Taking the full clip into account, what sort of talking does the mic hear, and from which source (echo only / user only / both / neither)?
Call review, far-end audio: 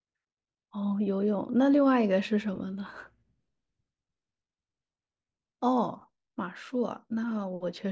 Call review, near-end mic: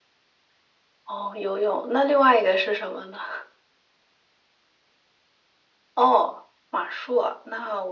echo only